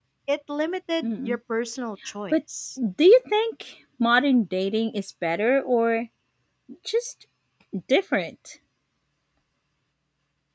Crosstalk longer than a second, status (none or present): none